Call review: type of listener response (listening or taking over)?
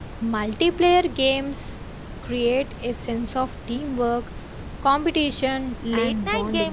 taking over